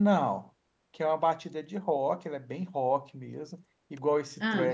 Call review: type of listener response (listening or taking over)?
listening